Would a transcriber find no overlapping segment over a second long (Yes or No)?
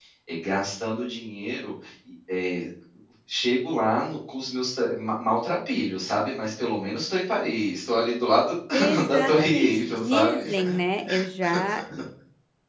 No